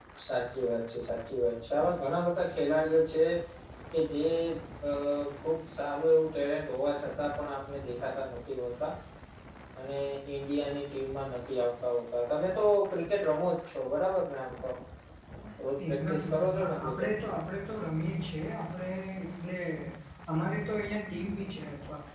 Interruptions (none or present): present